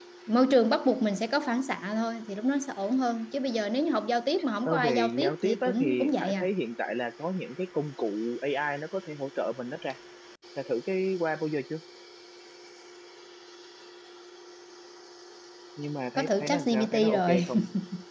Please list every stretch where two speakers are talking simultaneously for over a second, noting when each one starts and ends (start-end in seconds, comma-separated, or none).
4.7-6.5, 16.1-17.5